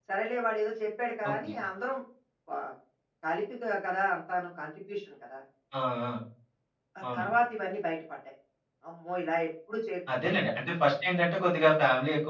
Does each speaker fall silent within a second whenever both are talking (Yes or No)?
Yes